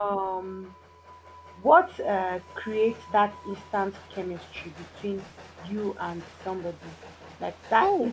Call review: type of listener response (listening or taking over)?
listening